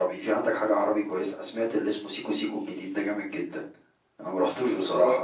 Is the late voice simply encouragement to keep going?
Yes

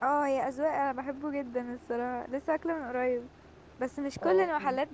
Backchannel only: Yes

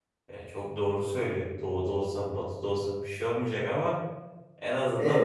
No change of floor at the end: Yes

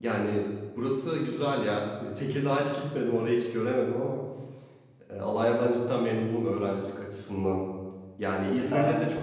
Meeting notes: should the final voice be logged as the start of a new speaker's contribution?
No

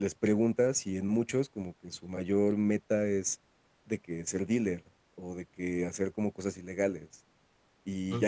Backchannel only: Yes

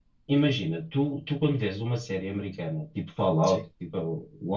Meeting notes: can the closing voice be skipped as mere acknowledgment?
Yes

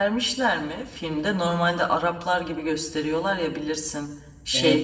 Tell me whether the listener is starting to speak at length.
No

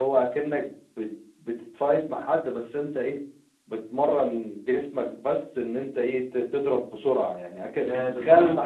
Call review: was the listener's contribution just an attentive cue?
No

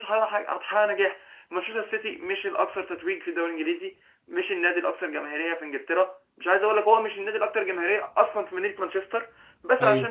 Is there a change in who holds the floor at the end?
No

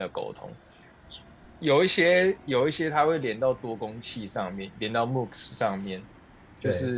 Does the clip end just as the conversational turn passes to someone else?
No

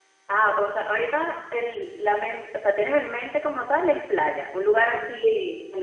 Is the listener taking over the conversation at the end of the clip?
Yes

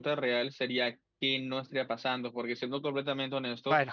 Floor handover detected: No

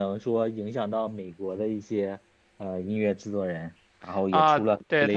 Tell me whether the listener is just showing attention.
No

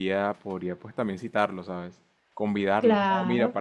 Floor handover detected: No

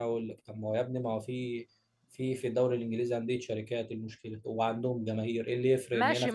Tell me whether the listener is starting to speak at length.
Yes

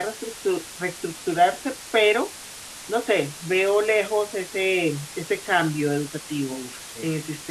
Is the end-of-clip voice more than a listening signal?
Yes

